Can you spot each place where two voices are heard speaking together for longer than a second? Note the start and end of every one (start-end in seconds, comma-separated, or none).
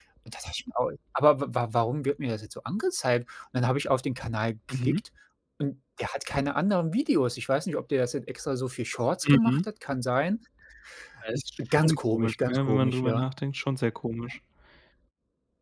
11.8-13.3